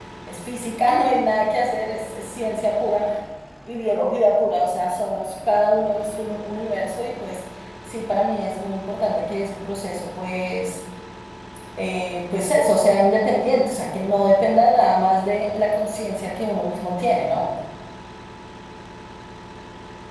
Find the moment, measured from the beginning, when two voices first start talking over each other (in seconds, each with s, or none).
none